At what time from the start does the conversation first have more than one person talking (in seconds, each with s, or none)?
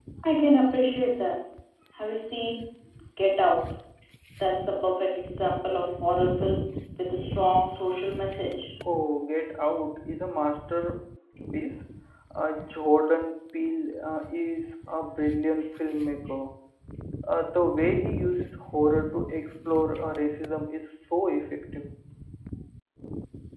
none